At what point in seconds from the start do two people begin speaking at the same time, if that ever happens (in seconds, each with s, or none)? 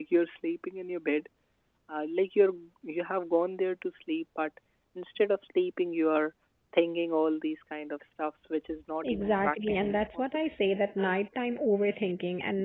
9.0 s